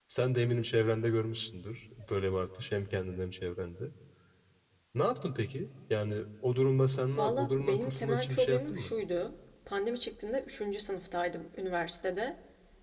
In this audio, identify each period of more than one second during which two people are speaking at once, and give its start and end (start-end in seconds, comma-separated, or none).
7.1-8.9